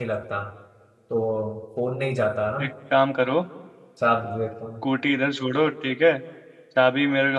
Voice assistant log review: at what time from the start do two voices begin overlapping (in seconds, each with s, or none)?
none